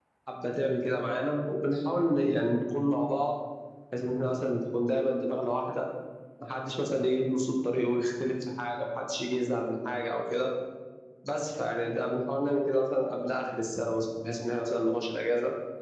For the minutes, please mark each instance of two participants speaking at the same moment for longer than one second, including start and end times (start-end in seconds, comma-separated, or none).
none